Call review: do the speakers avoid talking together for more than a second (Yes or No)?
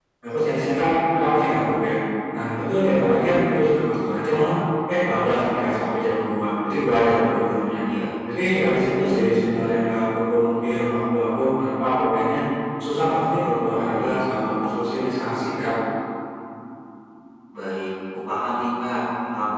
Yes